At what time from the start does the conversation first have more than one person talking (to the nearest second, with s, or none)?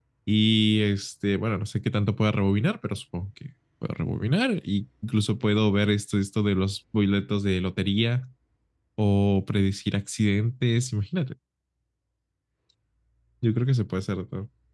none